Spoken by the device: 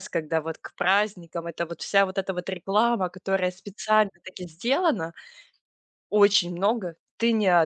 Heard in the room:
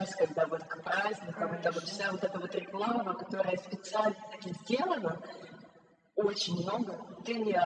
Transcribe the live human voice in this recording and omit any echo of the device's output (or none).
Конечно.